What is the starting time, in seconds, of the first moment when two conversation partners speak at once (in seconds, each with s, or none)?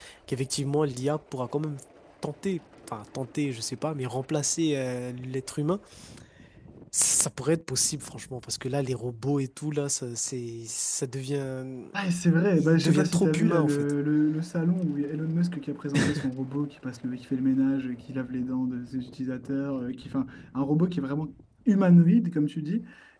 12.6 s